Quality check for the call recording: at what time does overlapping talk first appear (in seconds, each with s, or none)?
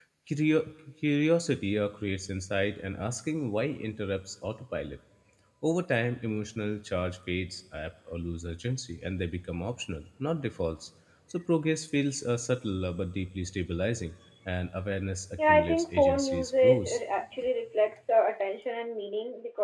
15.4 s